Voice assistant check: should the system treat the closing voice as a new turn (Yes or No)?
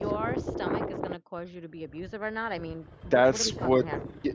Yes